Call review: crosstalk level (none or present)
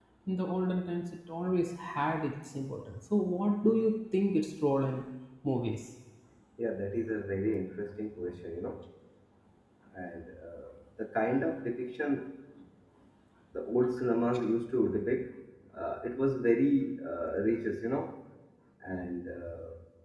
none